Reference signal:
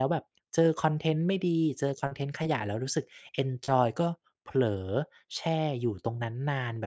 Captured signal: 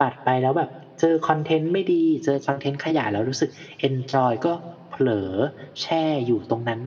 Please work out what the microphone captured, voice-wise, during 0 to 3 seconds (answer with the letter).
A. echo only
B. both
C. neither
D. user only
A